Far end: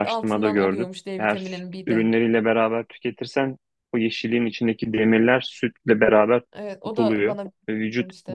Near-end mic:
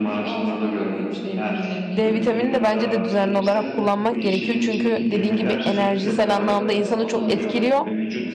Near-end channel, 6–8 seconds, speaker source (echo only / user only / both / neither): both